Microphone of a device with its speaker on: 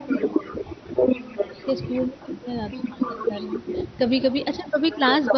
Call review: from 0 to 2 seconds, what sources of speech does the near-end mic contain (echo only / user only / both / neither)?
both